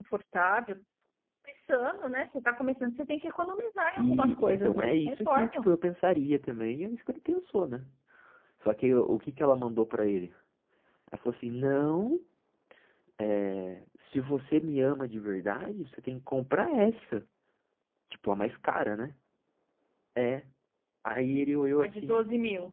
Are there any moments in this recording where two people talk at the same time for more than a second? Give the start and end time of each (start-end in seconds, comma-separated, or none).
4.0-5.7